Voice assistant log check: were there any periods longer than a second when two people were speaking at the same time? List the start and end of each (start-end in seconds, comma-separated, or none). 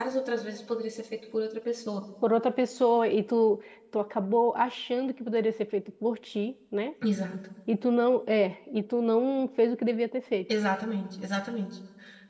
none